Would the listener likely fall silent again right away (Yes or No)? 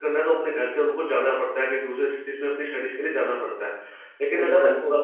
Yes